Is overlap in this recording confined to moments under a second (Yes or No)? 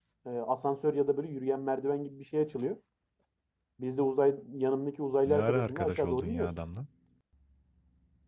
No